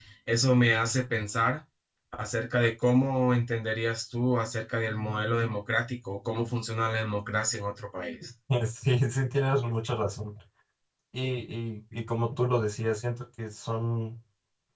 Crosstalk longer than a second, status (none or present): none